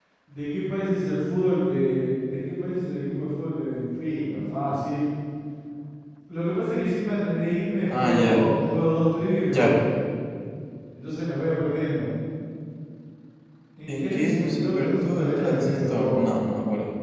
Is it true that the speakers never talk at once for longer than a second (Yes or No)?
No